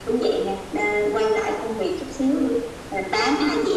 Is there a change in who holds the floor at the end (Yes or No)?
No